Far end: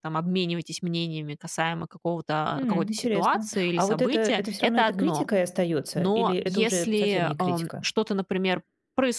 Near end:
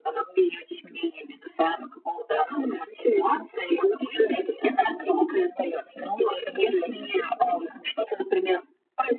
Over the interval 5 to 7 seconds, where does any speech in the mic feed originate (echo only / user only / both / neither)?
echo only